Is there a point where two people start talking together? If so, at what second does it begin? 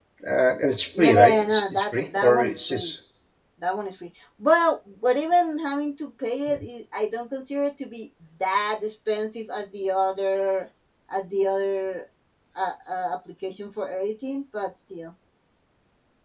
1 s

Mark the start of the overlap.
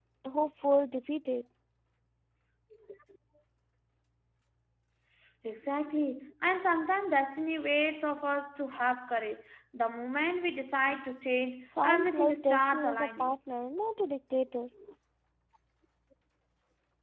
12 s

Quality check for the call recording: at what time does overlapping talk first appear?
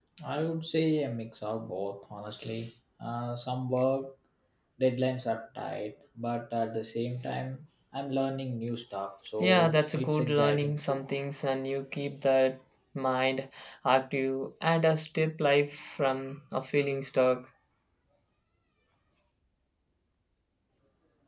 9 s

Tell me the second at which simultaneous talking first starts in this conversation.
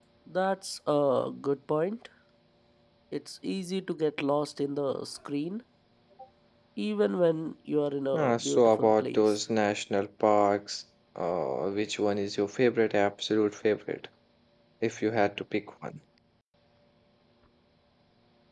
8 s

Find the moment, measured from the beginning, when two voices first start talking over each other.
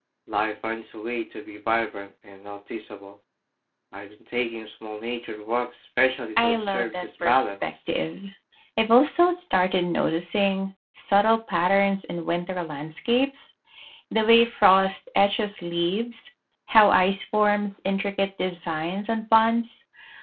6 s

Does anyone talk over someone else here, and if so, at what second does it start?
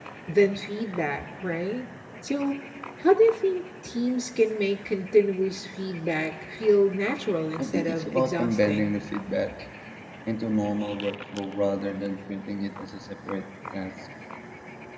8 s

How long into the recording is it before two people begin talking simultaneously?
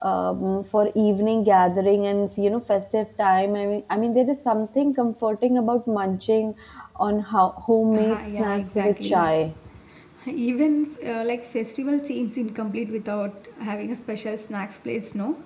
8 s

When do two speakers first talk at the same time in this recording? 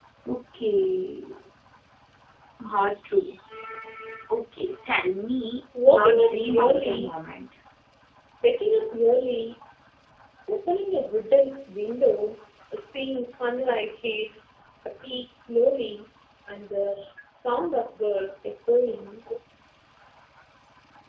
6 s

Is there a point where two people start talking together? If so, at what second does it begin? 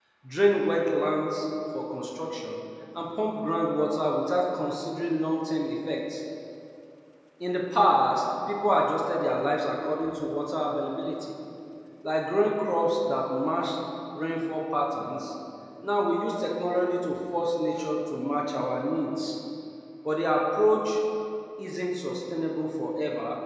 none

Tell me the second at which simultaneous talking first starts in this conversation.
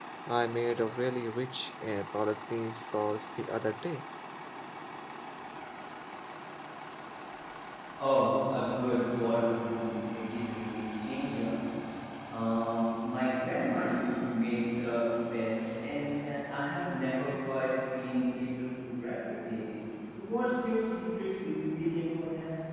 none

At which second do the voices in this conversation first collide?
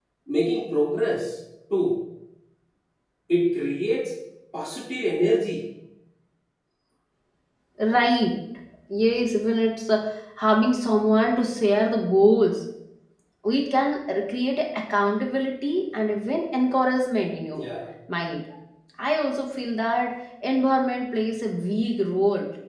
none

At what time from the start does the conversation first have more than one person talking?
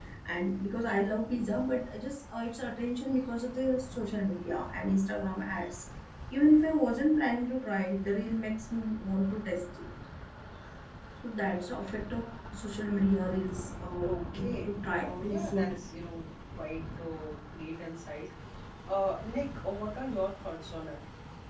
14 s

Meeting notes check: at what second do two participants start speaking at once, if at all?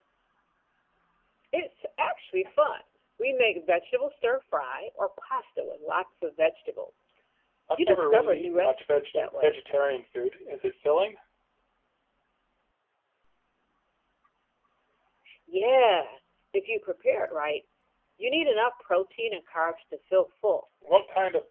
8 s

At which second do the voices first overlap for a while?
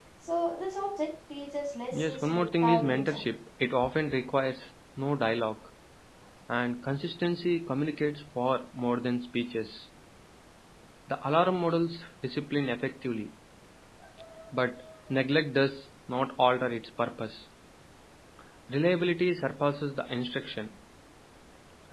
2 s

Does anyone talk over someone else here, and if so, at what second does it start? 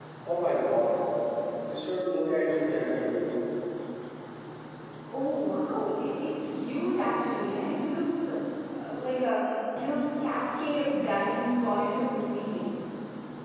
none

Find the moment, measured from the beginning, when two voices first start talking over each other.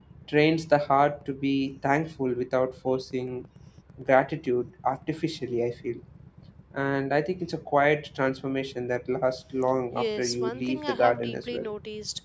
10 s

